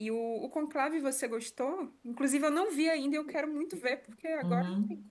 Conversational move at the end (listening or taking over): taking over